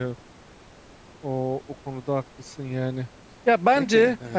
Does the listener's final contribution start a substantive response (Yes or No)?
No